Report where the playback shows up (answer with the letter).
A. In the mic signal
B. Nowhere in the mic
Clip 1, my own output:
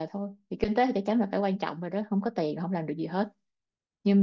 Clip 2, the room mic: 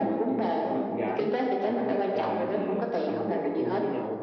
A